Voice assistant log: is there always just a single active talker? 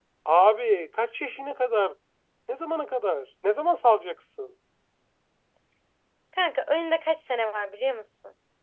Yes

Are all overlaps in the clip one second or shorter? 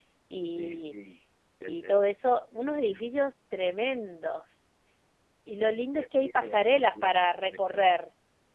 No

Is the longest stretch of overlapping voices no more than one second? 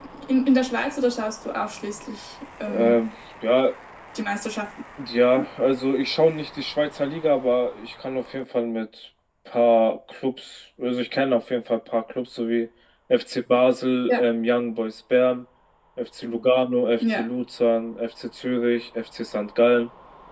Yes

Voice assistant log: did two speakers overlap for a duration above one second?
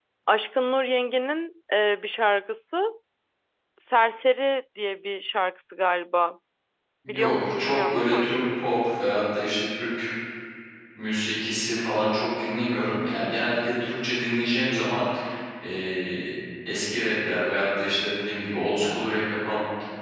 Yes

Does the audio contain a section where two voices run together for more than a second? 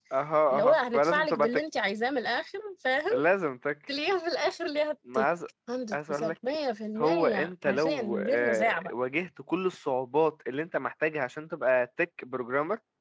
Yes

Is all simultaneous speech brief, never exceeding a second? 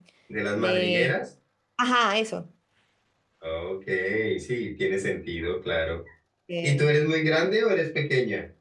Yes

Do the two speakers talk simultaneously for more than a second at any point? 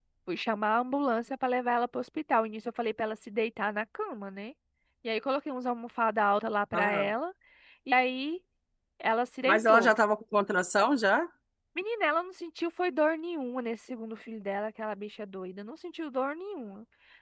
No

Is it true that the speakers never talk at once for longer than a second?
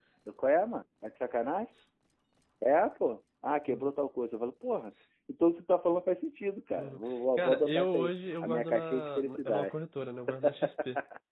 No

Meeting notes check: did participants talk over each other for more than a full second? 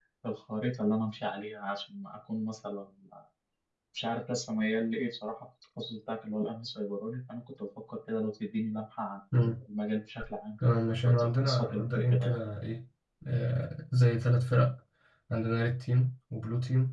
Yes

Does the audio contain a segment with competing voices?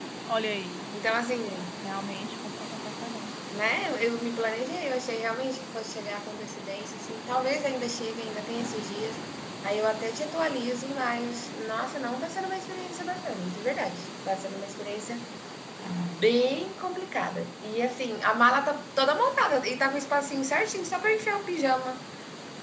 No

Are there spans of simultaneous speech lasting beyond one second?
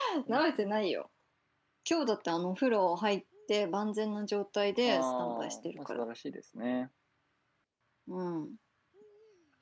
Yes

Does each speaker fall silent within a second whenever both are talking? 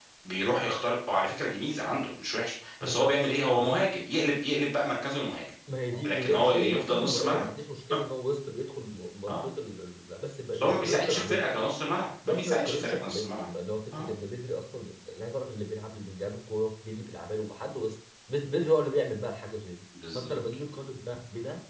No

